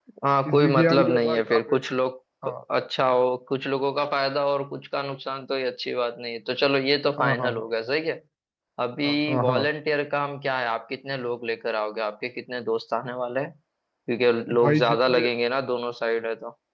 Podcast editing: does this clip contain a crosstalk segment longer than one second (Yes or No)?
Yes